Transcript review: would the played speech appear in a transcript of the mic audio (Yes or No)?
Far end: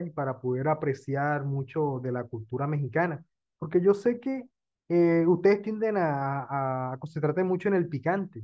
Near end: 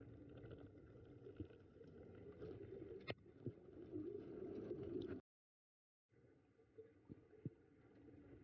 No